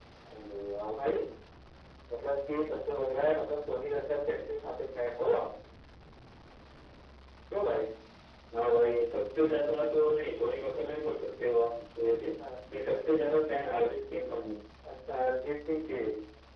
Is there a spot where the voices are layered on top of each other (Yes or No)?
No